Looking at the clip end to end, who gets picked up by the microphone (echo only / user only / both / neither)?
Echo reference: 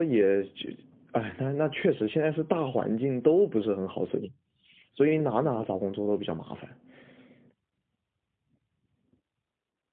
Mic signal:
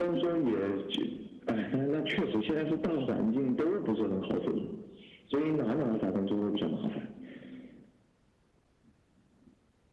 echo only